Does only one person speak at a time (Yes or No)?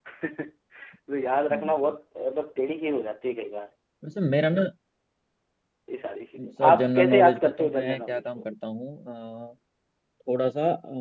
No